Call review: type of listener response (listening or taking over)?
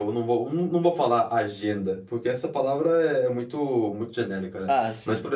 listening